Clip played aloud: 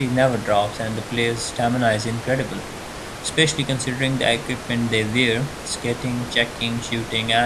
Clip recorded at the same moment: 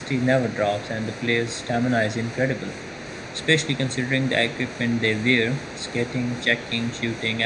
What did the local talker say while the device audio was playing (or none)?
none